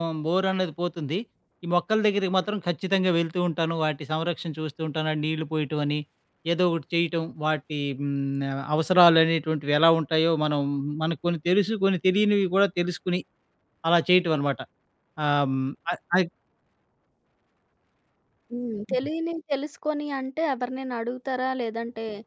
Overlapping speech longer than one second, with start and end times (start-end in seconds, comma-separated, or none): none